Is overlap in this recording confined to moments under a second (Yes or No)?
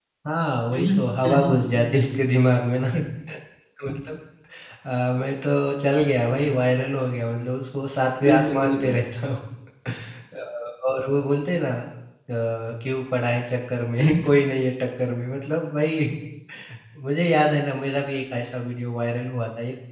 No